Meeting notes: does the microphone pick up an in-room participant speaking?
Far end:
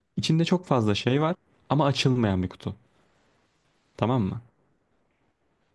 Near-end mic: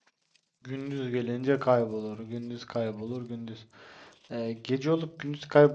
Yes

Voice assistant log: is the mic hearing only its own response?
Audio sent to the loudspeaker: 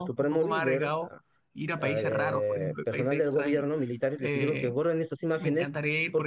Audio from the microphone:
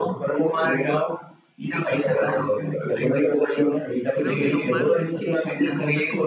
No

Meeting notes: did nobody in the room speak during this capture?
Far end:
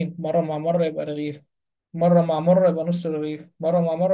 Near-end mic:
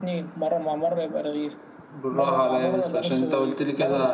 No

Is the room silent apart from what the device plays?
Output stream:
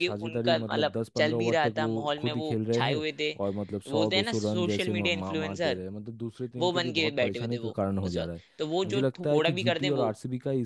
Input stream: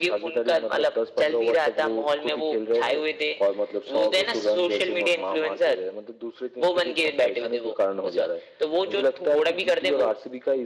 Yes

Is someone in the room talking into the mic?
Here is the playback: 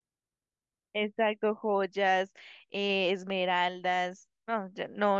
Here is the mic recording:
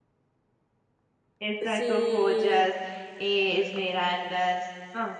Yes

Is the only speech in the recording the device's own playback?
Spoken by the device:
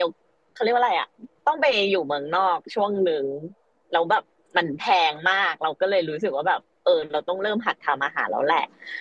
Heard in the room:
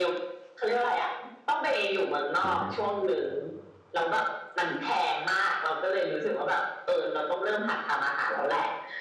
No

